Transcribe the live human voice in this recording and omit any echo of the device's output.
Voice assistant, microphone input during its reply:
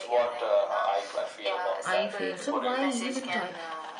I failed. So, why even try?

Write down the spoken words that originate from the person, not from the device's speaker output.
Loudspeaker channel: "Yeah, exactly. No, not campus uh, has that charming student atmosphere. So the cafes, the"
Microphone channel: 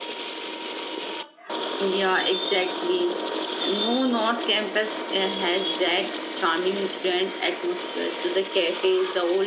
none

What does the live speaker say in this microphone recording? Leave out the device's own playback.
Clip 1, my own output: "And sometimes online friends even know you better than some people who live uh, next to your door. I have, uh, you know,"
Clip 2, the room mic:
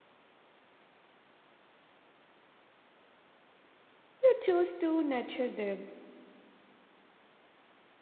You choose to nurture them,

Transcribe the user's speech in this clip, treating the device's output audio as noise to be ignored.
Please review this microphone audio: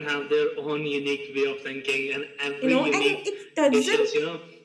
you know, and it doesn't

